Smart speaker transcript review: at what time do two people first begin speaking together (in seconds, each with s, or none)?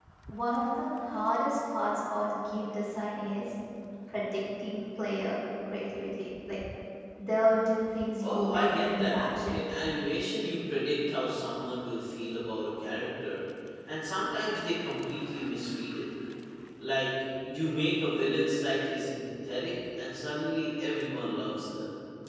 8.2 s